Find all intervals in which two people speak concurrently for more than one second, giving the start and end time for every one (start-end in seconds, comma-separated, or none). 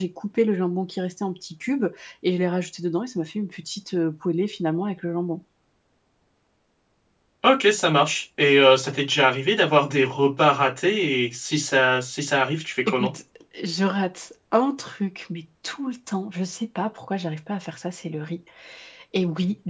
none